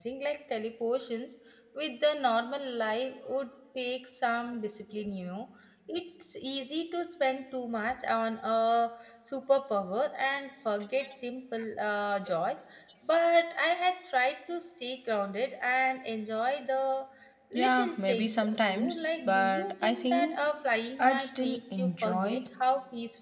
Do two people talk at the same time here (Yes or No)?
Yes